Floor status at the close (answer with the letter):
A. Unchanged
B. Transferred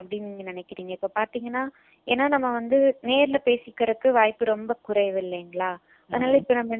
A